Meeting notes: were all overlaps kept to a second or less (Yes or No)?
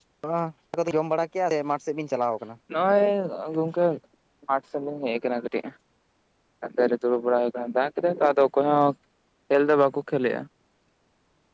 Yes